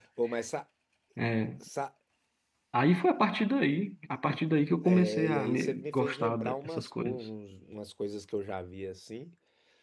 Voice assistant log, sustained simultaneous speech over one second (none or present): present